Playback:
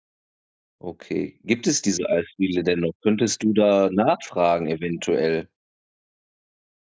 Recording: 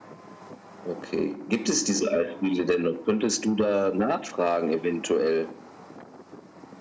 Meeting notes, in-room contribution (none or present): none